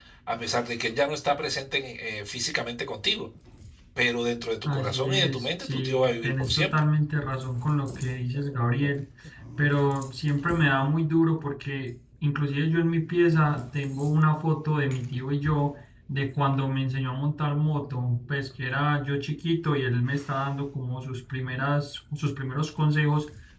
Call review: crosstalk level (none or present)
present